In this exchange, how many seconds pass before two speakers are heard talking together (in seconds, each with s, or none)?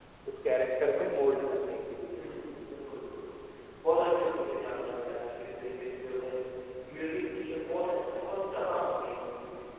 none